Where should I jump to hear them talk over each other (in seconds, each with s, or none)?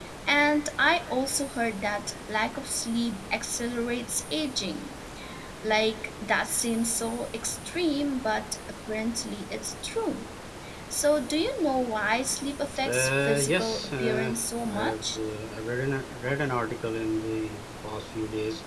12.8 s